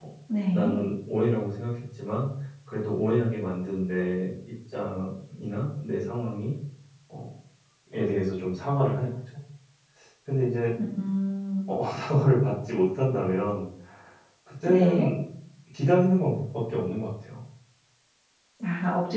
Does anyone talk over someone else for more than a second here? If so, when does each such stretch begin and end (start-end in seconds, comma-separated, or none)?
none